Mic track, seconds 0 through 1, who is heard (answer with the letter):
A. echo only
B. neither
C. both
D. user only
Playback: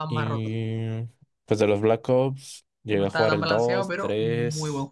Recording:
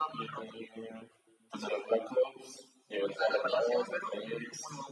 A